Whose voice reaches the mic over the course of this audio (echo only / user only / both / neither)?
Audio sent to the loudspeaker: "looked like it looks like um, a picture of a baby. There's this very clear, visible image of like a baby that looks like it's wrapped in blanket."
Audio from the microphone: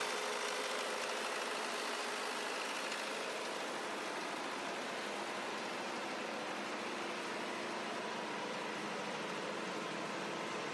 neither